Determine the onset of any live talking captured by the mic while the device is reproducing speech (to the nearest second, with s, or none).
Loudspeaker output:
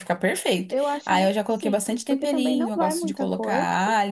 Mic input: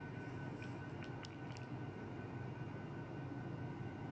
none